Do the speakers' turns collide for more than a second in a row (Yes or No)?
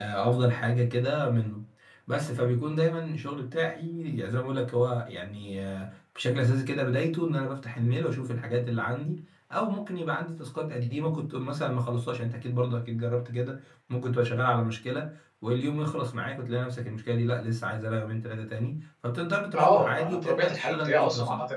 Yes